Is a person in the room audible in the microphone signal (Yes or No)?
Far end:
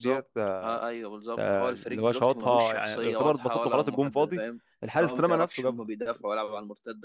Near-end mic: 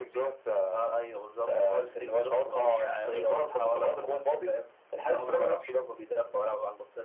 No